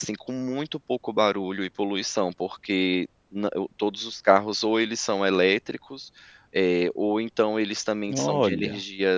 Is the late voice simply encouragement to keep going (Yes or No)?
Yes